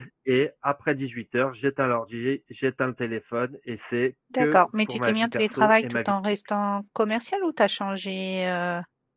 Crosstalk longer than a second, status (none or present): present